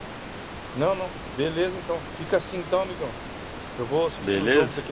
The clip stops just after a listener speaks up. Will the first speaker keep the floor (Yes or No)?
Yes